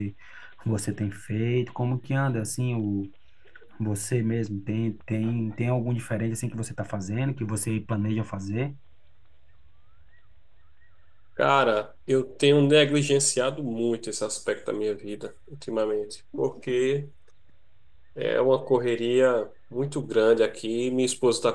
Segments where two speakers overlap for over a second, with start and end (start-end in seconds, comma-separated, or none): none